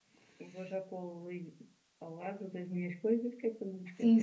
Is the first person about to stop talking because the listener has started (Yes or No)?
Yes